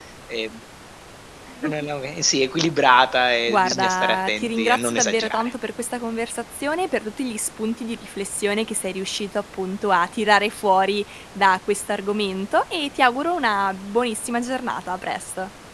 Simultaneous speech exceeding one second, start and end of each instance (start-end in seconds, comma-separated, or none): 3.5-5.5